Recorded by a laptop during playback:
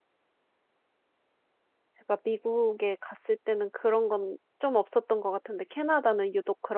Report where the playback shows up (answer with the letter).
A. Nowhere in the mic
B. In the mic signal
A